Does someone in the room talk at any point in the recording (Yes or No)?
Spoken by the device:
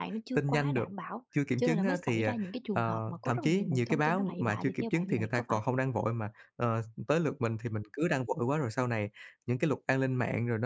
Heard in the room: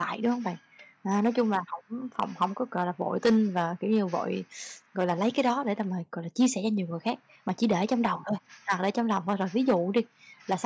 Yes